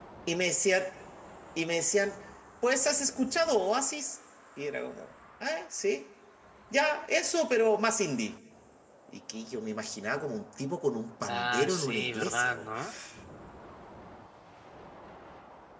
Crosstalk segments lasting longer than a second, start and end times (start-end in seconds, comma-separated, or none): 11.3-12.7